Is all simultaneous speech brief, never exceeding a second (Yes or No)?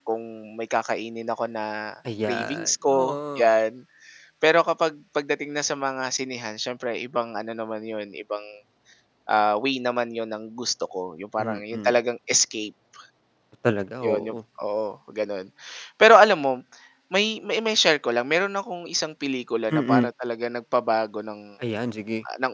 No